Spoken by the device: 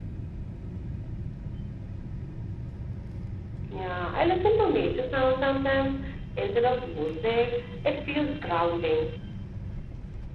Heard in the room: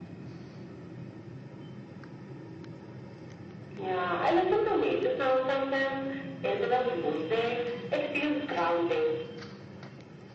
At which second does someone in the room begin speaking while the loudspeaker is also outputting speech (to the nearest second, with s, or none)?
none